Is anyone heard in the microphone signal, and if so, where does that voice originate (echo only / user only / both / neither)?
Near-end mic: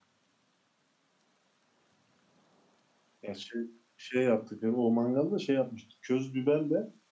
user only